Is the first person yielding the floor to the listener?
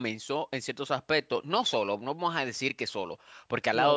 No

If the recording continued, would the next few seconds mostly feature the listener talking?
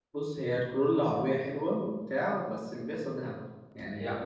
Yes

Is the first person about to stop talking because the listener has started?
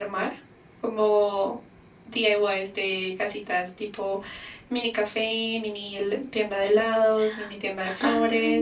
Yes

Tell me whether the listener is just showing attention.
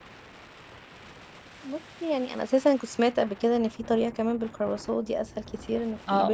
No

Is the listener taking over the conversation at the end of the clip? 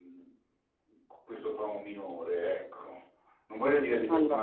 No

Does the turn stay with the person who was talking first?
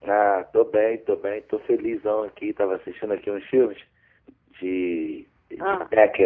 Yes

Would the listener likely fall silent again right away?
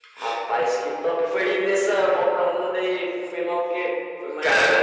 No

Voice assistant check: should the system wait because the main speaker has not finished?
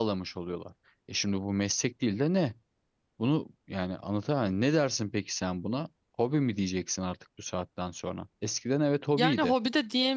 No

